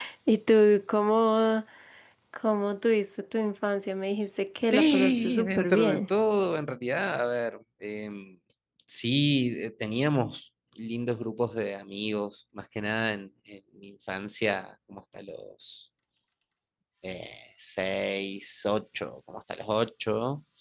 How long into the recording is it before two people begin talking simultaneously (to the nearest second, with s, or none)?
5 s